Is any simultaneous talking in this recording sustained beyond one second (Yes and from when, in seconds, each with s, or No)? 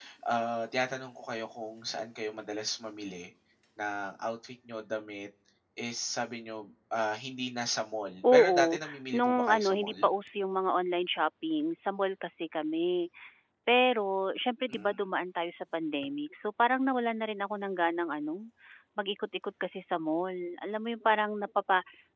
Yes, from 8.3 s